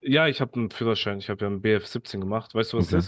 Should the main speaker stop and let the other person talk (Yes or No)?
Yes